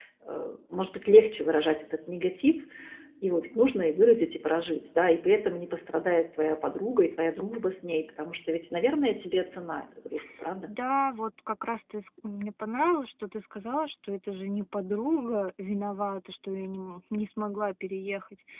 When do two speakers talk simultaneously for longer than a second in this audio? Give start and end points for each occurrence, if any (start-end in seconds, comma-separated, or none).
none